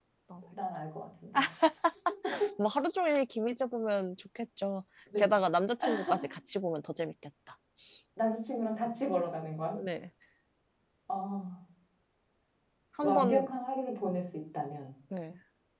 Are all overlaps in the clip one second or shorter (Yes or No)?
Yes